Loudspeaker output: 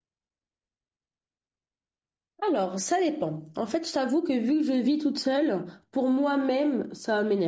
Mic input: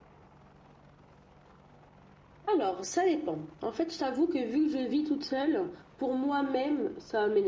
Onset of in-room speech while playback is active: none

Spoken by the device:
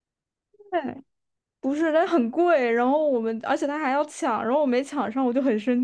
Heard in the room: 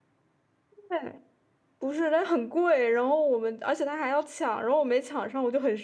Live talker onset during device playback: none

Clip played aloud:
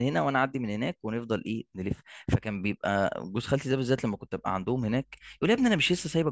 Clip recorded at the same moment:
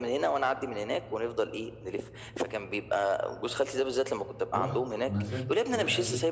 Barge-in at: 4.5 s

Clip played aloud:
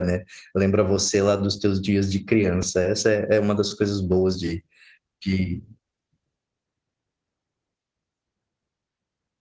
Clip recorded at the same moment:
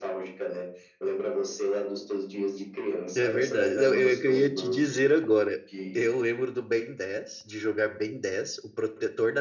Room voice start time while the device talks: 3.1 s

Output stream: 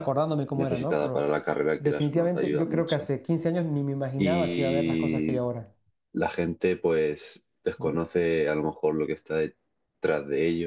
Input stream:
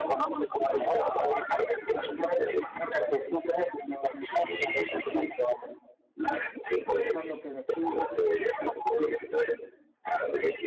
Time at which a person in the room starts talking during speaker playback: 6.9 s

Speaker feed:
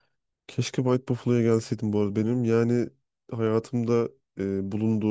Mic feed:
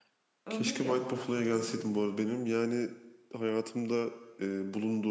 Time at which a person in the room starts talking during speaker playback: 0.5 s

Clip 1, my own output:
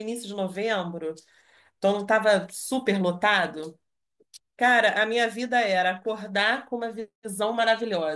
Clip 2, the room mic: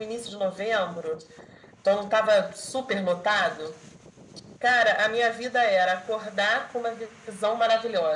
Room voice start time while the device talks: none

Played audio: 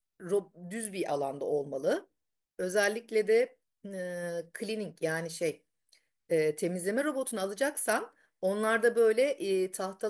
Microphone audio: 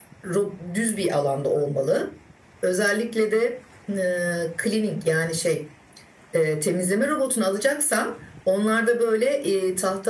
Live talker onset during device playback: none

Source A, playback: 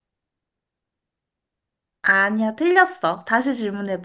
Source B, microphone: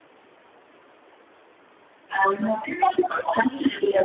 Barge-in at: none

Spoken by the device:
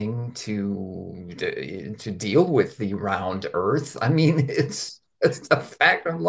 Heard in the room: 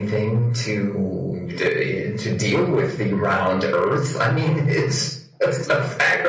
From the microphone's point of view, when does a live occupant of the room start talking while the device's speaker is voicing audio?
none

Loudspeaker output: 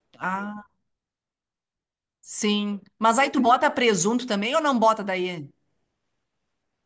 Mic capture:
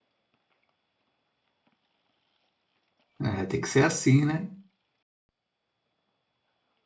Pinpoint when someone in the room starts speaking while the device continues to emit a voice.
3.2 s

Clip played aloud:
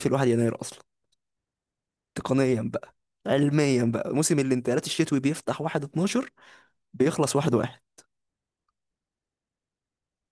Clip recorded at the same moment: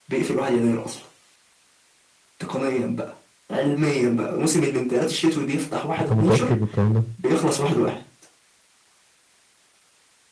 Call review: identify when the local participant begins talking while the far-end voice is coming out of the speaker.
6.0 s

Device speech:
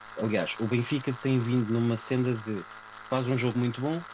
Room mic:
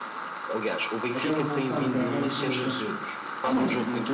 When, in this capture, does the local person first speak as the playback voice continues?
1.1 s

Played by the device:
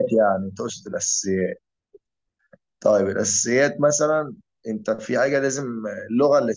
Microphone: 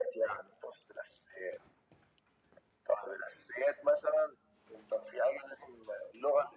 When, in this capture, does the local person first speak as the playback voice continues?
none

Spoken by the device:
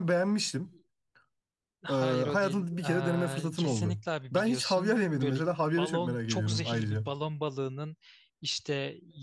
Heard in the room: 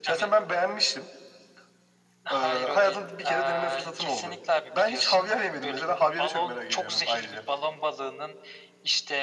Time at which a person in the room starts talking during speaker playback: none

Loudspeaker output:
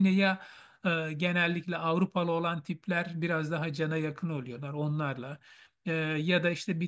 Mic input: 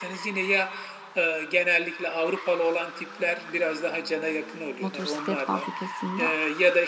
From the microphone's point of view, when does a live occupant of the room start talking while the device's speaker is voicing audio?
4.8 s

